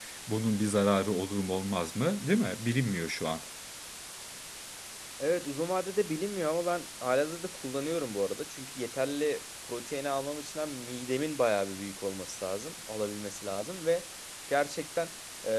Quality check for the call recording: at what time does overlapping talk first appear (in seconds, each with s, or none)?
none